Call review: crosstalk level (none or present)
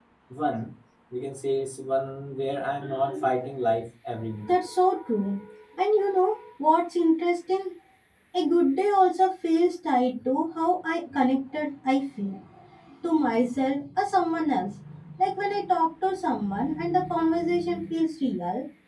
none